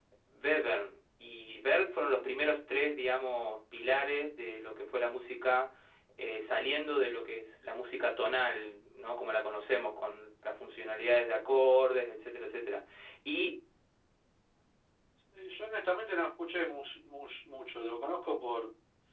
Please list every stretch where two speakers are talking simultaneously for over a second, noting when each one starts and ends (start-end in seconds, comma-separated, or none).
none